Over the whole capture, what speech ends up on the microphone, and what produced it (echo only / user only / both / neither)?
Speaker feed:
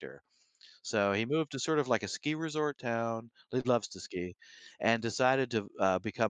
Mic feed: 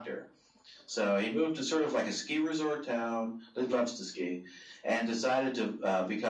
echo only